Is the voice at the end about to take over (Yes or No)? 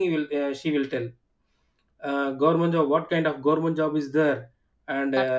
No